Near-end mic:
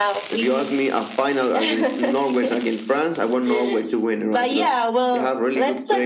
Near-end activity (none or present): none